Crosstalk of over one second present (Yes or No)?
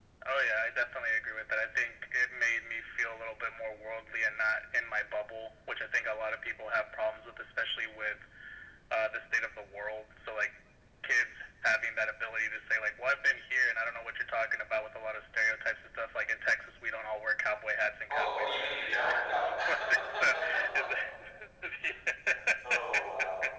Yes